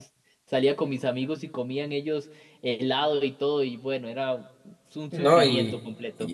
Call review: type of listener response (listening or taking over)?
taking over